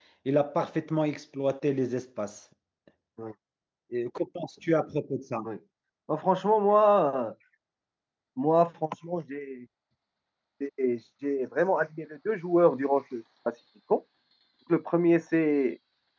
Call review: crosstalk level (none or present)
none